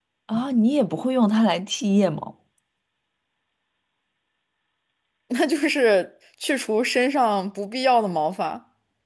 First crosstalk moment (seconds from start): none

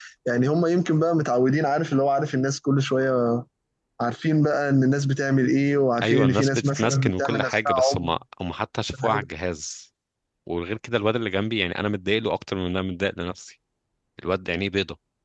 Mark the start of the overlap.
6 s

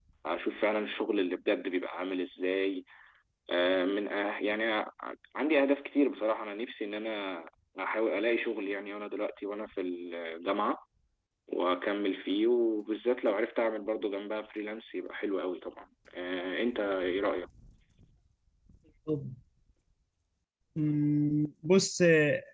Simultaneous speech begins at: none

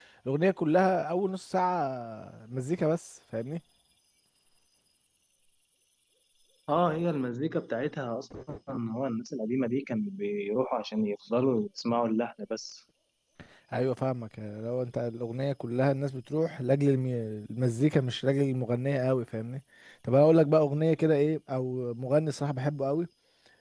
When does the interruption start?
none

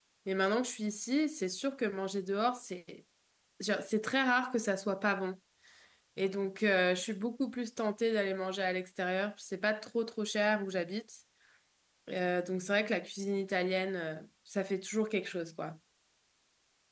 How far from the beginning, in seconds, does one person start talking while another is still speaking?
none

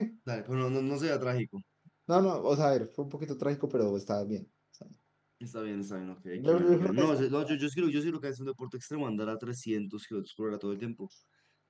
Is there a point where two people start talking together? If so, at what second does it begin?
6 s

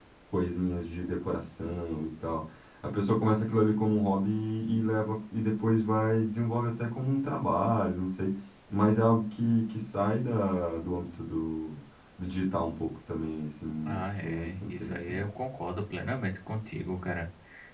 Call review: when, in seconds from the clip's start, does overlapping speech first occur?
14 s

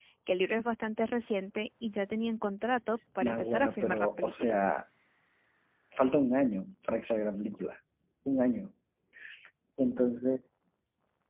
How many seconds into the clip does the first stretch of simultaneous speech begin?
3 s

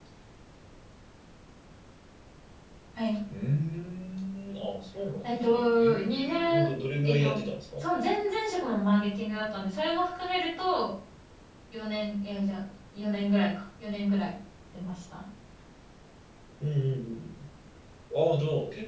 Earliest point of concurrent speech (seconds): 5 s

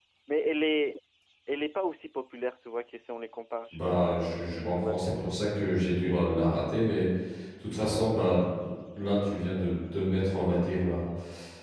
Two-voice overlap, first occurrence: 4 s

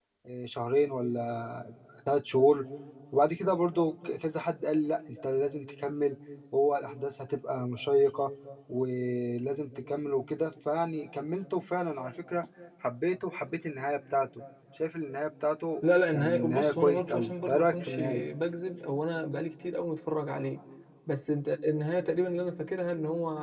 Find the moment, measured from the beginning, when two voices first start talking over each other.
16 s

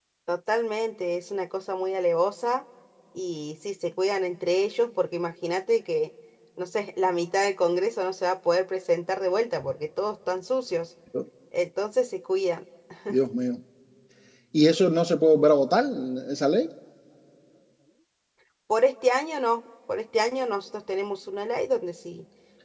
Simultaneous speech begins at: none

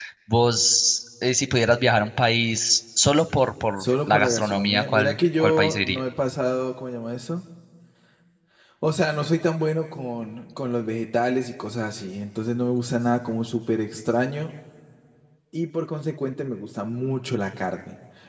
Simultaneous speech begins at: 4 s

